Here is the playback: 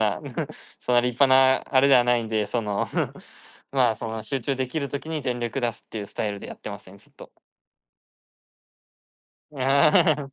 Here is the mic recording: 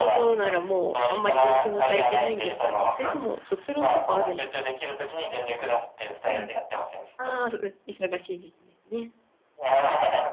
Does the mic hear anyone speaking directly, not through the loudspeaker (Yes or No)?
Yes